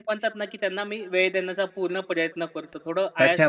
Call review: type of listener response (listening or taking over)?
taking over